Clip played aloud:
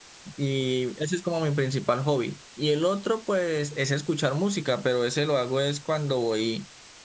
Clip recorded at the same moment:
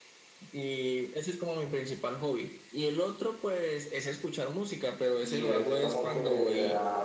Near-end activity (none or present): present